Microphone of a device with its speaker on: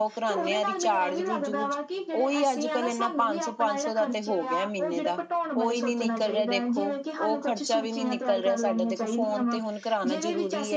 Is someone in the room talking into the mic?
Yes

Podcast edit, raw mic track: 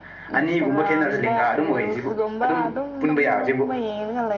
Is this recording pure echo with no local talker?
No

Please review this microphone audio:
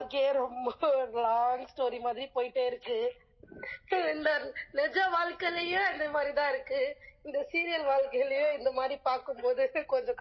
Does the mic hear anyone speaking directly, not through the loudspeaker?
No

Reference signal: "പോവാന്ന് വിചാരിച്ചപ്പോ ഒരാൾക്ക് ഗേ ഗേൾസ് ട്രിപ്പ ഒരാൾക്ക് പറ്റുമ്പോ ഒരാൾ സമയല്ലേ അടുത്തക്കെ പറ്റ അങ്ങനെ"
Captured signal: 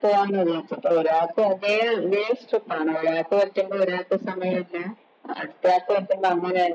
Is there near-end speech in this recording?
No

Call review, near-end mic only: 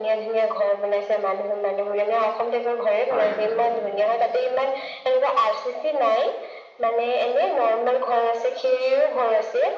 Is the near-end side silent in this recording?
No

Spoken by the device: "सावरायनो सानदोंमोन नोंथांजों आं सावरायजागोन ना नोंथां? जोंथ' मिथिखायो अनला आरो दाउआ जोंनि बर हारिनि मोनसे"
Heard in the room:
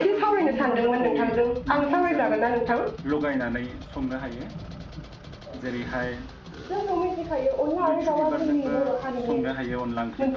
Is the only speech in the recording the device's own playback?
No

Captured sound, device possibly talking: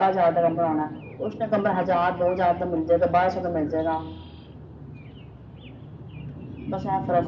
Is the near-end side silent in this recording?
Yes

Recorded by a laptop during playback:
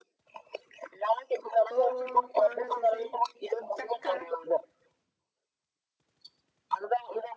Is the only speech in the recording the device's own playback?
No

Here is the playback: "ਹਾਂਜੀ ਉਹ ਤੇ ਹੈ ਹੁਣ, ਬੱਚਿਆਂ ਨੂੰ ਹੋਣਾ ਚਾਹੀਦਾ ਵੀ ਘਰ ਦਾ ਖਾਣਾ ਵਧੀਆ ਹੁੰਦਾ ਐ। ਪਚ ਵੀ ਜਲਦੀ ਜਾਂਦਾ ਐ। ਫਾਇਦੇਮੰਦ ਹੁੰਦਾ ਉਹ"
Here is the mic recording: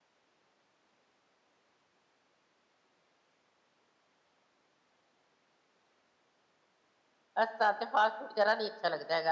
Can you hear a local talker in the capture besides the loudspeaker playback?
Yes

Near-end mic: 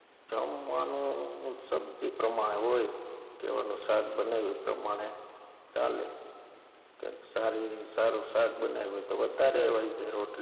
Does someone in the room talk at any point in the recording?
No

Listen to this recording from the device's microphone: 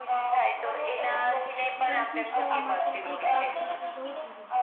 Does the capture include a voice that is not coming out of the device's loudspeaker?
Yes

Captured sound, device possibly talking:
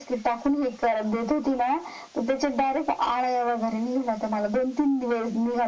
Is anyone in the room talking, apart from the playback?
No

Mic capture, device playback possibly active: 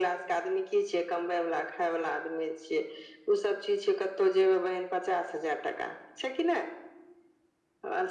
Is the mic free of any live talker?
Yes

